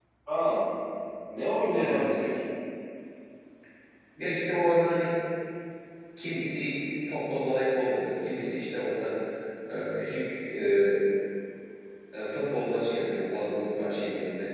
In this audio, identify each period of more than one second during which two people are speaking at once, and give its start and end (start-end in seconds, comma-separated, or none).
none